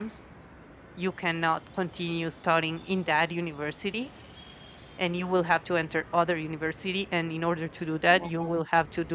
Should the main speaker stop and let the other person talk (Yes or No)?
No